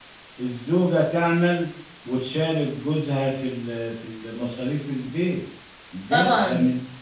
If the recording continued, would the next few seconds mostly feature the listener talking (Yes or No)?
Yes